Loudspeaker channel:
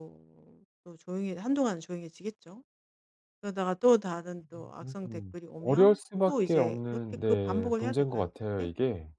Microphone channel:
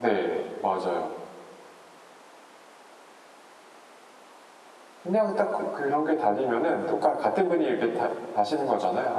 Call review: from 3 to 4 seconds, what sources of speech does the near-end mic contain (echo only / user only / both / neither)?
neither